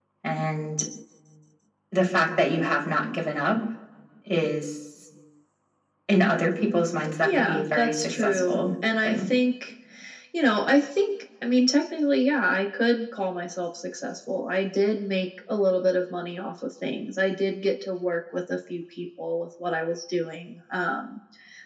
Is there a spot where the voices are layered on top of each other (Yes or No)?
Yes